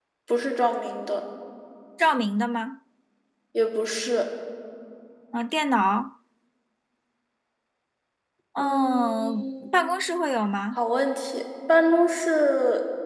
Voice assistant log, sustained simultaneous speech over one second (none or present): present